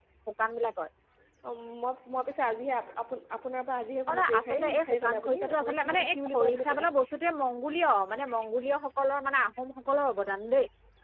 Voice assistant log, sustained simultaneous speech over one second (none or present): present